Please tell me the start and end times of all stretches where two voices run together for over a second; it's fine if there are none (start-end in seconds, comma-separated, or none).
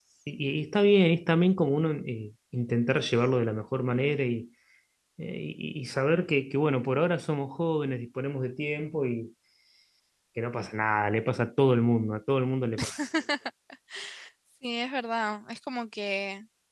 none